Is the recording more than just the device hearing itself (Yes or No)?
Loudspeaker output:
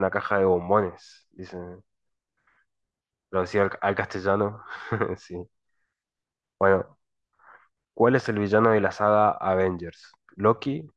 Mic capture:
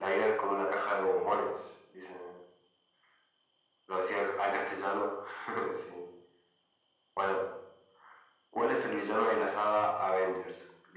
No